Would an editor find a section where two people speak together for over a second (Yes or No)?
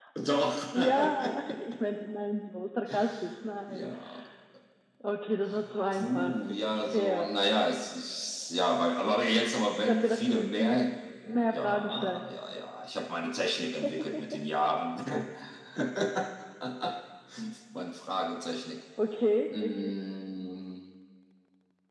Yes